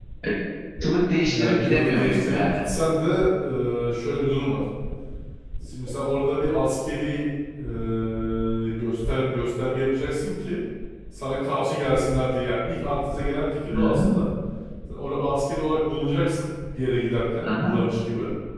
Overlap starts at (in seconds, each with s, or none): 1.2 s